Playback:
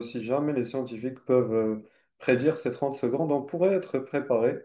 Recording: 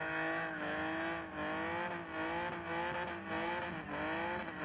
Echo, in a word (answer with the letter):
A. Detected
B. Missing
B